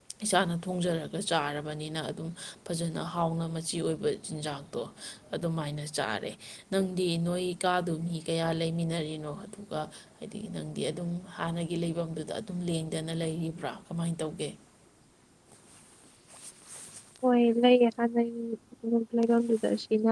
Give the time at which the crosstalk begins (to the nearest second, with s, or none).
none